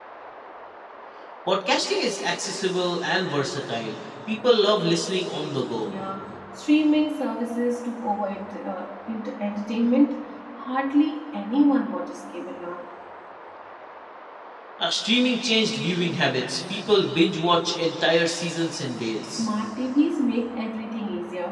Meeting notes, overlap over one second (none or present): none